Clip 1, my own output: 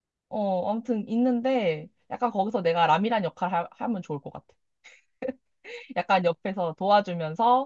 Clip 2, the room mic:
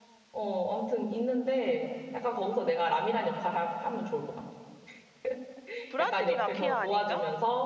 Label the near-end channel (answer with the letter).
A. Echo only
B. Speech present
B